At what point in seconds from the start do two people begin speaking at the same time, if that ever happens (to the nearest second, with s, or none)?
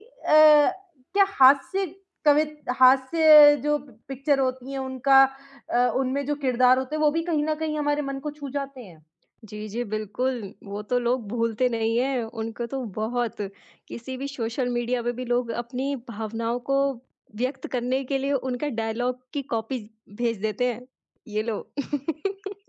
none